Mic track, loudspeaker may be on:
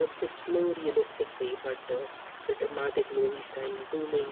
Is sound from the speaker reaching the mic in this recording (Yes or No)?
Yes